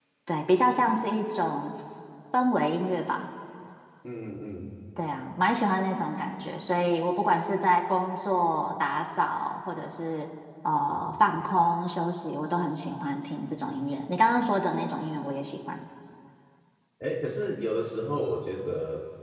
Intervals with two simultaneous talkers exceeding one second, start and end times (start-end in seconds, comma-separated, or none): none